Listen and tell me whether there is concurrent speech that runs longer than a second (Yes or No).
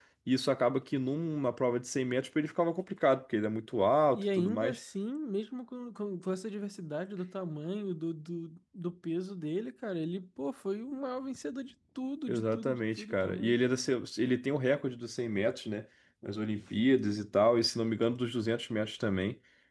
Yes